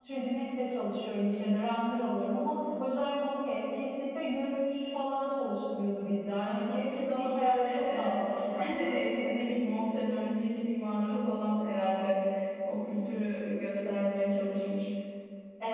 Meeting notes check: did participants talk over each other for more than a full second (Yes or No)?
Yes